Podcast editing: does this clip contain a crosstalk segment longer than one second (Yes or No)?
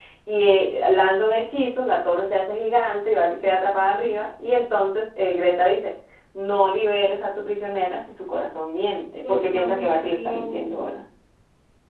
Yes